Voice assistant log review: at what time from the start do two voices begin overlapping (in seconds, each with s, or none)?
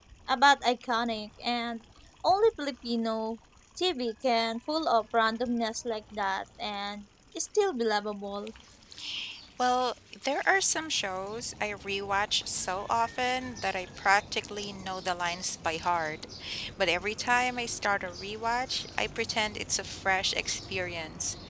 none